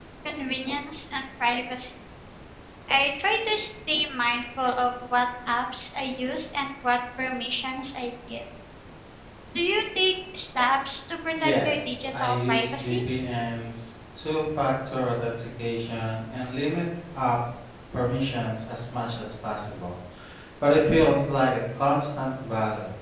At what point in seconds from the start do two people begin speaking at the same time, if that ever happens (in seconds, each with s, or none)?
11.4 s